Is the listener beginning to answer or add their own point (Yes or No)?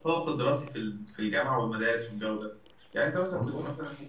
No